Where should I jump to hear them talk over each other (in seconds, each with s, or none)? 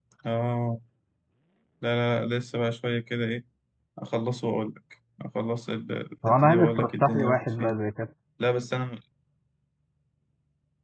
6.2 s